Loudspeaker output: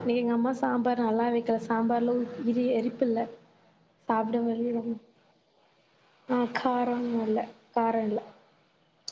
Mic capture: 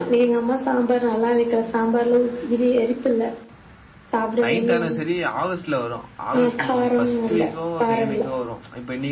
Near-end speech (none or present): present